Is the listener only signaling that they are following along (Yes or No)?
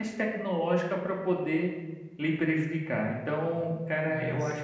Yes